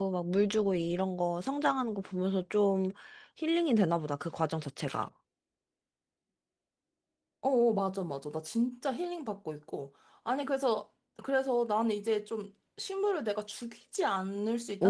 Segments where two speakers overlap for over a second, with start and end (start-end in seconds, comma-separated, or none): none